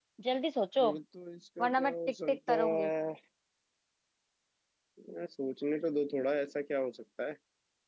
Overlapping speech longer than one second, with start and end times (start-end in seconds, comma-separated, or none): 1.6-2.9